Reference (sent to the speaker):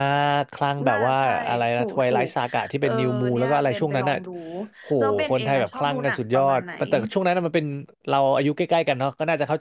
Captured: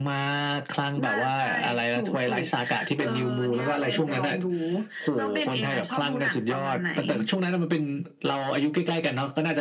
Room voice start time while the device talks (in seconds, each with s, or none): none